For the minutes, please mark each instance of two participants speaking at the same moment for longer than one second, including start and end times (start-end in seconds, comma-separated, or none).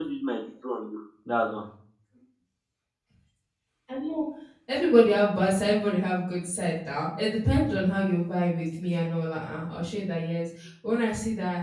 none